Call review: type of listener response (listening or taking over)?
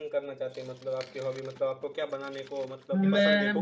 taking over